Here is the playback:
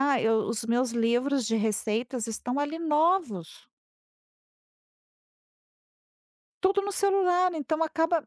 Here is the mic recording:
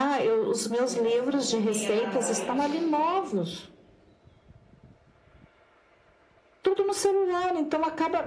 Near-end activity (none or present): present